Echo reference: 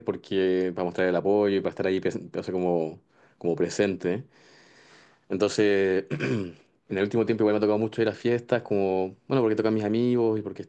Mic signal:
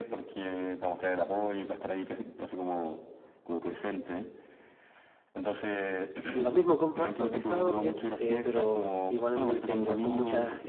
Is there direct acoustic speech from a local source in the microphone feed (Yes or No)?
Yes